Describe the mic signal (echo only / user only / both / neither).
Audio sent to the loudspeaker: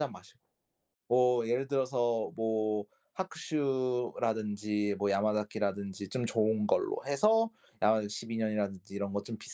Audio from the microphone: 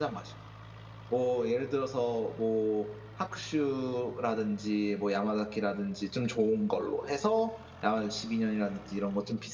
echo only